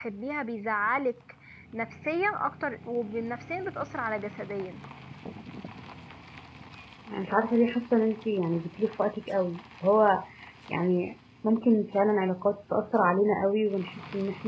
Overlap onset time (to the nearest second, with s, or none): none